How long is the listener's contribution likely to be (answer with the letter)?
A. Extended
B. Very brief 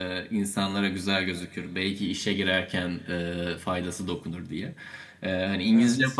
B